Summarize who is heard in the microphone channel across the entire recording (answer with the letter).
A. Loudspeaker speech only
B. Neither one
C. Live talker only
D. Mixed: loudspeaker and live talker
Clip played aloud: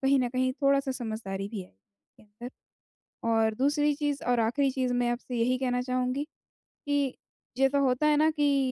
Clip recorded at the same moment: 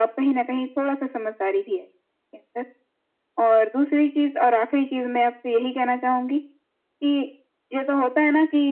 A